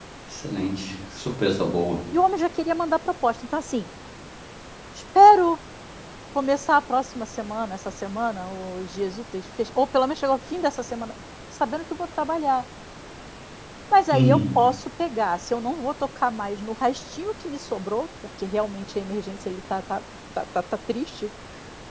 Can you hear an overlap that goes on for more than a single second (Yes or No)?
No